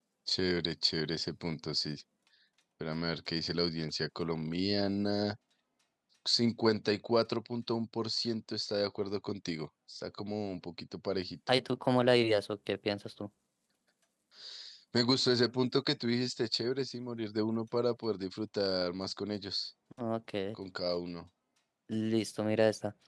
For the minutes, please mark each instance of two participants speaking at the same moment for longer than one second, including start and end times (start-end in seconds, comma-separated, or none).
none